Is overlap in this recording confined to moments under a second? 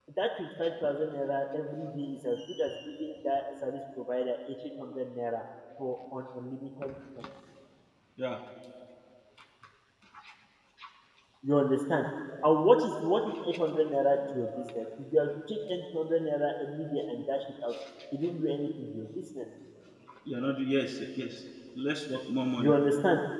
Yes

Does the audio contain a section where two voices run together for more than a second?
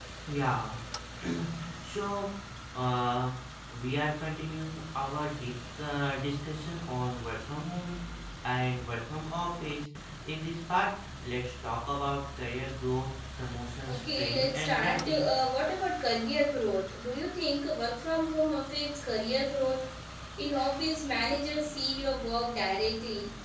Yes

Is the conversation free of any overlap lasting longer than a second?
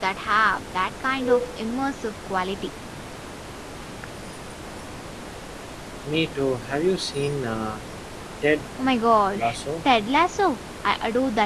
Yes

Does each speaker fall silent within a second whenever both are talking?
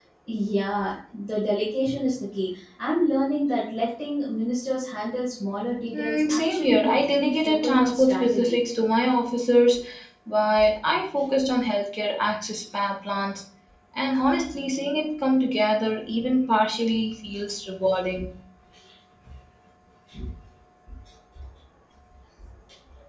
No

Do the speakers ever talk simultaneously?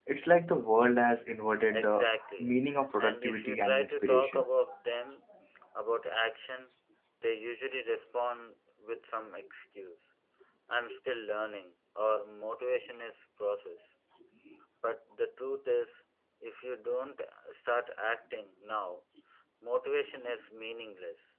Yes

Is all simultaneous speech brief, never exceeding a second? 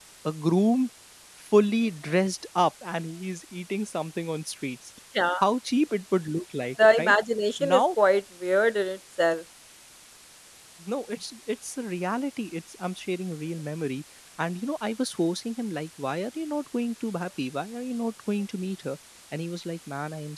Yes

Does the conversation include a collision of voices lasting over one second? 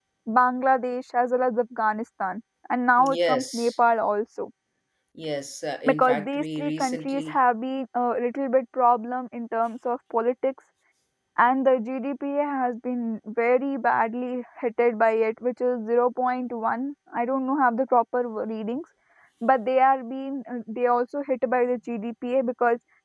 Yes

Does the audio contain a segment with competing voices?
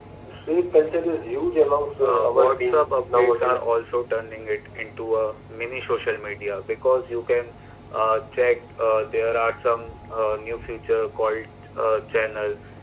Yes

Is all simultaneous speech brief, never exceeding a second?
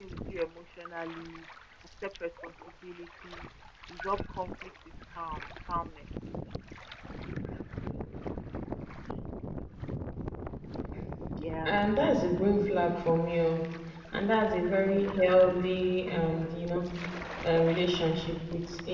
Yes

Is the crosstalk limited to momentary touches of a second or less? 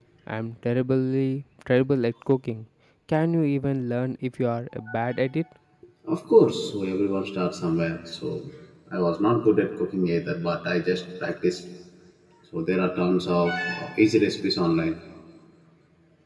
Yes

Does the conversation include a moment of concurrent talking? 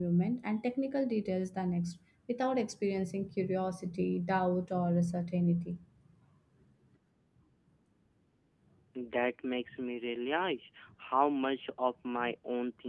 No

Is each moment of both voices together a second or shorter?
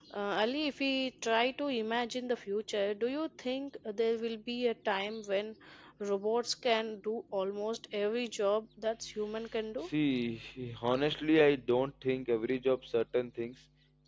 Yes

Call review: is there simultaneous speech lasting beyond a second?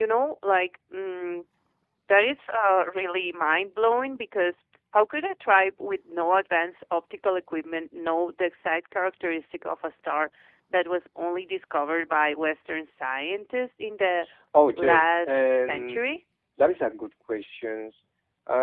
Yes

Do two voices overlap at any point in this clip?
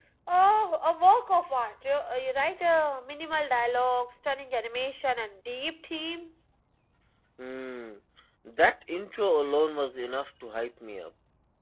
No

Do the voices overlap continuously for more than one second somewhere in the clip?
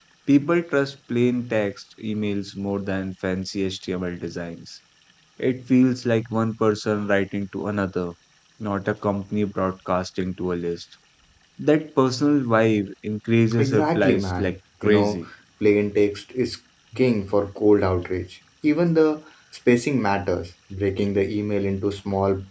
Yes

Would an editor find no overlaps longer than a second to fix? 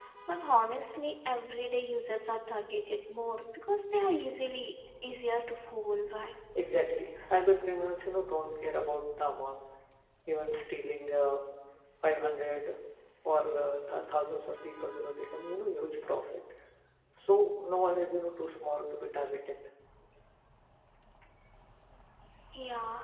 Yes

